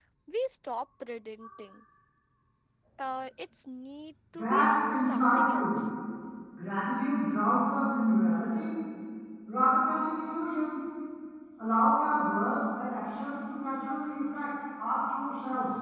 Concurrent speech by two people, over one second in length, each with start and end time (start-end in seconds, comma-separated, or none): 4.3-5.8